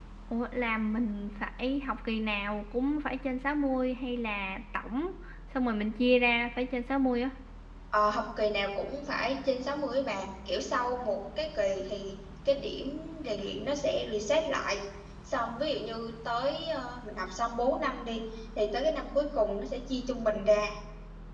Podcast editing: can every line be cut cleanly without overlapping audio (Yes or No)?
Yes